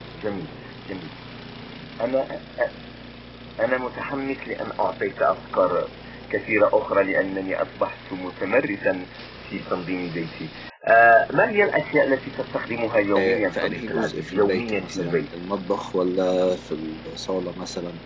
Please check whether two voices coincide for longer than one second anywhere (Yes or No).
Yes